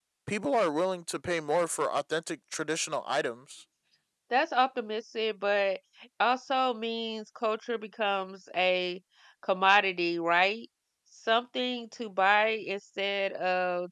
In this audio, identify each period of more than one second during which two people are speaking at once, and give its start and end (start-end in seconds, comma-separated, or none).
none